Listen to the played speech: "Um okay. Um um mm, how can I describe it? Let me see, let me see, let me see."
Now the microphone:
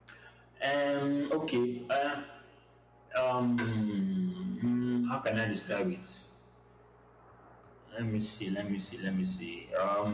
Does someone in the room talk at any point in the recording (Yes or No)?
No